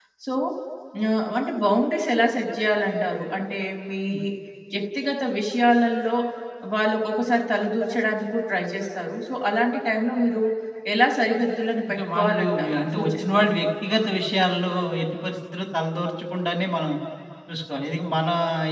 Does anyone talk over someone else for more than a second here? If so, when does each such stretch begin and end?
11.9-13.5

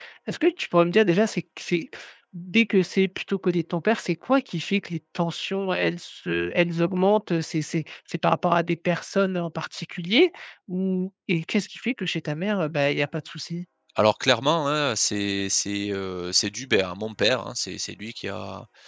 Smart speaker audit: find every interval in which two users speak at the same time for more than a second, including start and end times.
none

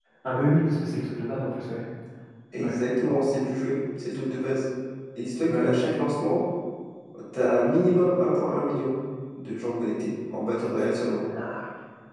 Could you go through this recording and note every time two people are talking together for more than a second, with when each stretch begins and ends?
none

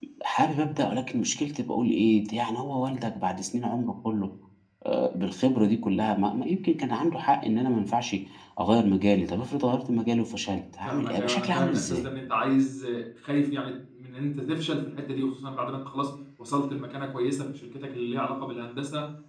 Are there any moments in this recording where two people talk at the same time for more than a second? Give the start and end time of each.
10.8-12.1

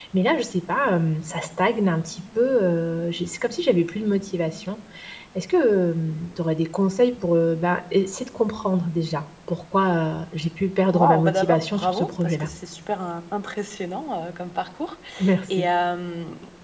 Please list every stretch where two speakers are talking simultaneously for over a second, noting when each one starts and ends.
10.9-12.5

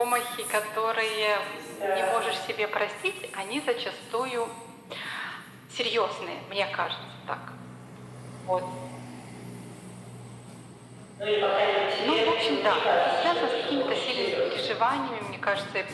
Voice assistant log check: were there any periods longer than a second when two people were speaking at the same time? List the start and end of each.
12.0-14.7

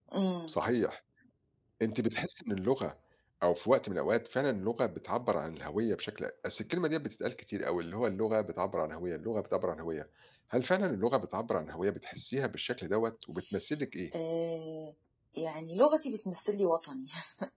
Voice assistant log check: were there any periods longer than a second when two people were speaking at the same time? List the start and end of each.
none

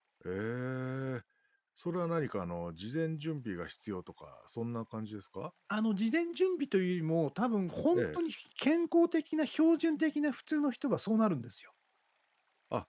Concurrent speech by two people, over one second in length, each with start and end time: none

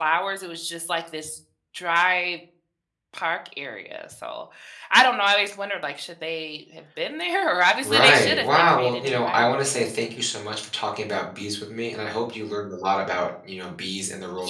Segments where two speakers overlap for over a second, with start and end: 7.8-9.9

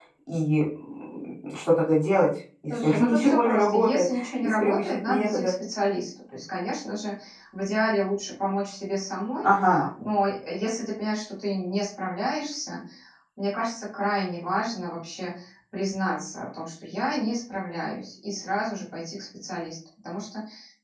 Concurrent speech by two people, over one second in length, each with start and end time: 2.8-5.5

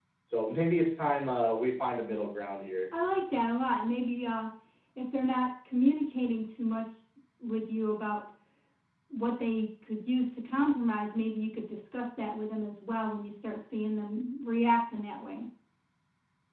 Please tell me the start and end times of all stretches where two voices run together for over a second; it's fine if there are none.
none

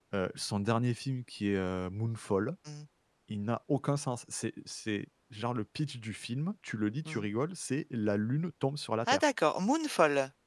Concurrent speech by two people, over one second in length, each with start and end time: none

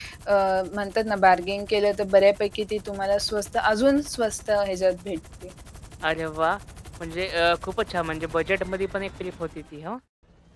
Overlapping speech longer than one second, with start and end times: none

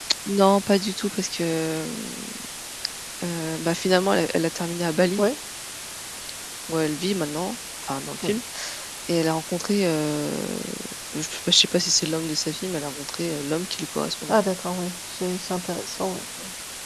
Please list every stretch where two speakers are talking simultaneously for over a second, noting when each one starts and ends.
none

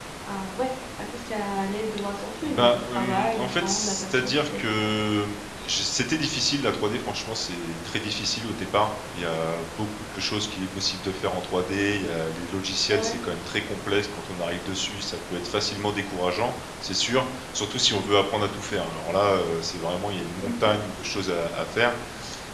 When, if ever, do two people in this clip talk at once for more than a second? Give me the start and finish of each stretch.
2.4-4.9

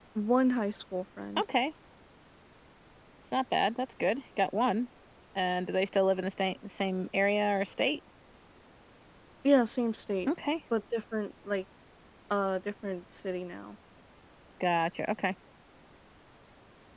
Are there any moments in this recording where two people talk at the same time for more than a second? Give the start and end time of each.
none

